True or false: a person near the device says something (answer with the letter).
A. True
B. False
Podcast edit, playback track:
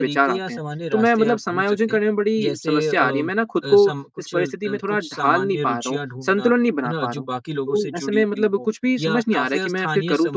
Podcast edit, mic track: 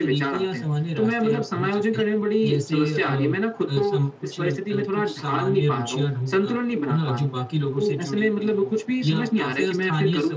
B